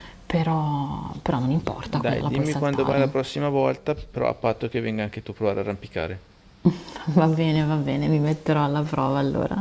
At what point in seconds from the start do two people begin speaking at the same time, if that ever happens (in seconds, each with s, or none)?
1.8 s